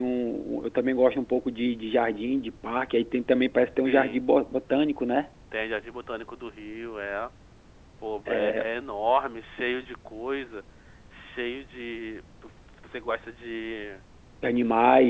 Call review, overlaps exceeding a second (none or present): none